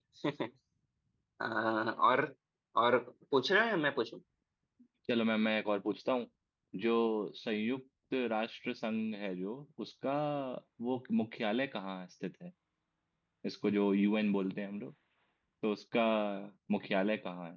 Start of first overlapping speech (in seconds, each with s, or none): none